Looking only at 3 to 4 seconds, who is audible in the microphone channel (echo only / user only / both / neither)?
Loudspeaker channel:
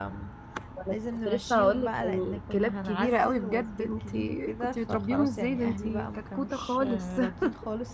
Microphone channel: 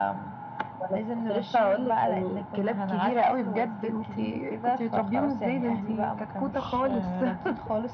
echo only